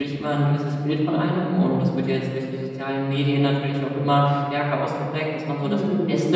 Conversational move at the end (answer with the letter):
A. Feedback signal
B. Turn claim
A